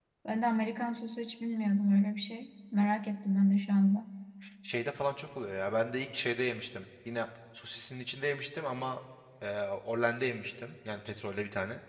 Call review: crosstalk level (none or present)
none